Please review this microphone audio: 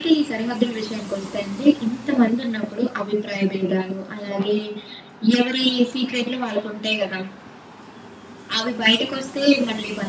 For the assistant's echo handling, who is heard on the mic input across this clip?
echo only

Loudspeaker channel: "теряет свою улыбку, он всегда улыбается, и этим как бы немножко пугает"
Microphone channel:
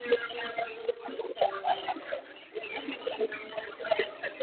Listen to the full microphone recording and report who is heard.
echo only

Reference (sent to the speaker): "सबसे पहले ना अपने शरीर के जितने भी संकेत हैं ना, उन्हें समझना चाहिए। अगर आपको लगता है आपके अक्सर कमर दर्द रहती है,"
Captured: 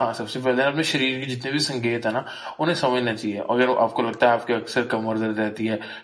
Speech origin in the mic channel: echo only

